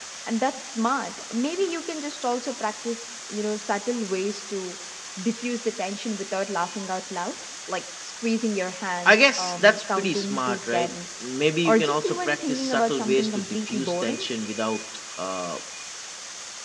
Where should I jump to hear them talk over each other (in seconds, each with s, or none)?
9.0 s